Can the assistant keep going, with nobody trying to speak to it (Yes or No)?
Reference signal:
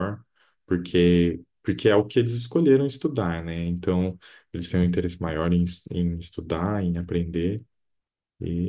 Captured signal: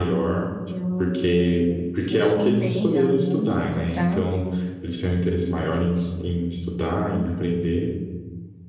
No